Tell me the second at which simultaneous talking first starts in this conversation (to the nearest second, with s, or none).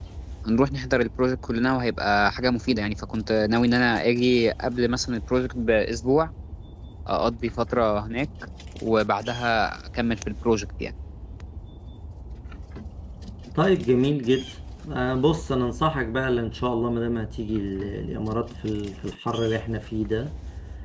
none